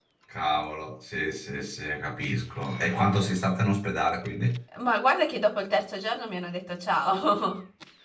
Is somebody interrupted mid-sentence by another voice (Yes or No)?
No